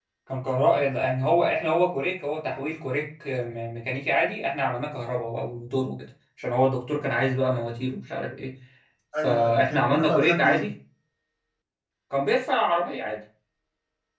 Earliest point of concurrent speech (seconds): 9.2 s

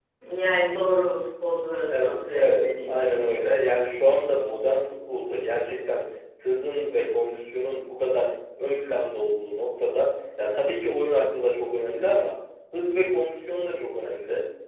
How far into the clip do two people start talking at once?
1.9 s

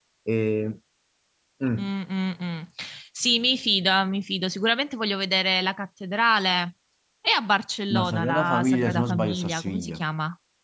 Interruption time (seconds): 8.0 s

